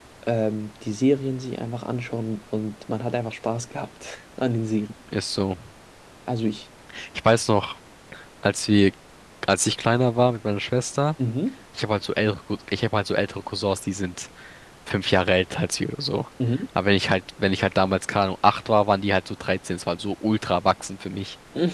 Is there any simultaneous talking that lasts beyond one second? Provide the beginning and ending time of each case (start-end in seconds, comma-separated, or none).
none